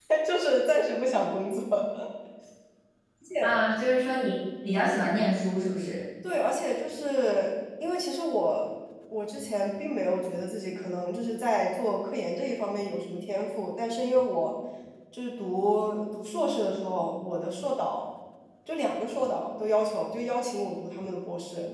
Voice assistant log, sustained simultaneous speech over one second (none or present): none